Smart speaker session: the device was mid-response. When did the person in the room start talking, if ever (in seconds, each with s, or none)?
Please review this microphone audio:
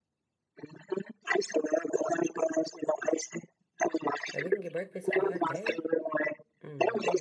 4.3 s